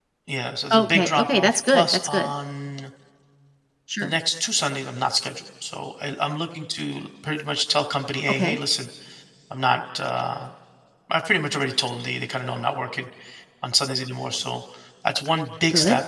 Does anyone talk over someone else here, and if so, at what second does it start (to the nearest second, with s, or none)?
1 s